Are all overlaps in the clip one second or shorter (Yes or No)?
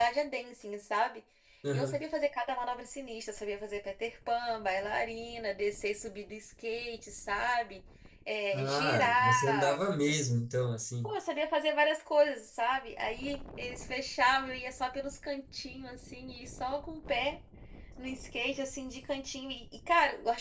No